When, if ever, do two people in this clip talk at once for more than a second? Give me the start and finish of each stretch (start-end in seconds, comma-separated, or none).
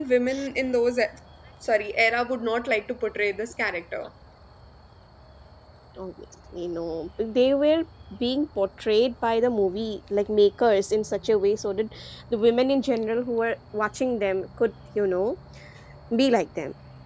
none